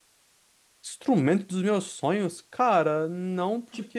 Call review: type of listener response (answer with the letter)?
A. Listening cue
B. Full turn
A